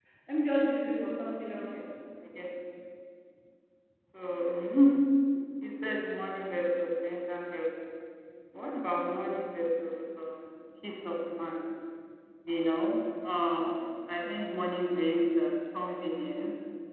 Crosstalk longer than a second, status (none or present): none